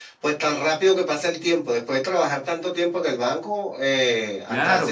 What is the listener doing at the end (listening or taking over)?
taking over